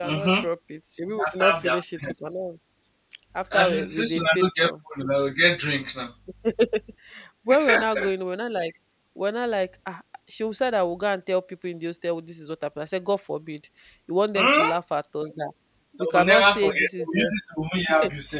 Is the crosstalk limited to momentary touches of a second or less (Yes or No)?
No